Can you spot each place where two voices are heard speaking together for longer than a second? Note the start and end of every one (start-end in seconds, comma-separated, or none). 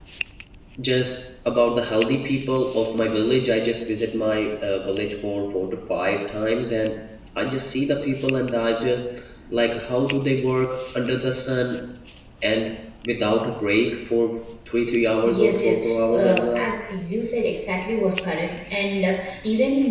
15.2-16.7